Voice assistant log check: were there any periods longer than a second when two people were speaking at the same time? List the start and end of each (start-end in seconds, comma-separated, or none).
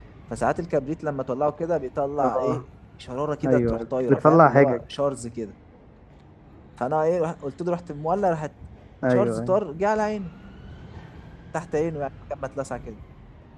3.5-4.8